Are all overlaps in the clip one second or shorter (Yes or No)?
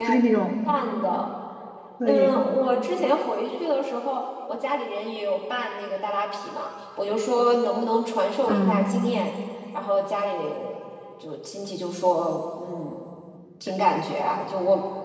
Yes